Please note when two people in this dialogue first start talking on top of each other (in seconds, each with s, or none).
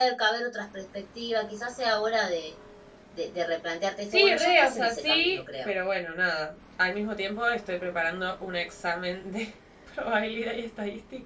4.1 s